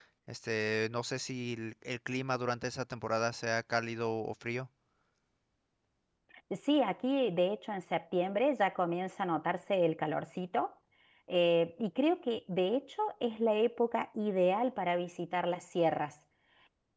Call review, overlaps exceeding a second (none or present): none